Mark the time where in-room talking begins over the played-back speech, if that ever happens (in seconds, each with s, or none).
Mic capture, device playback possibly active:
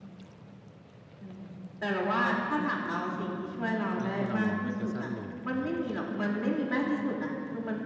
4.0 s